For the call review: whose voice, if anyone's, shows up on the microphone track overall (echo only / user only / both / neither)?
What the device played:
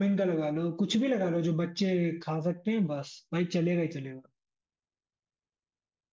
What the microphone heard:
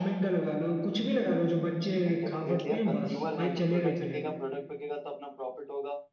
both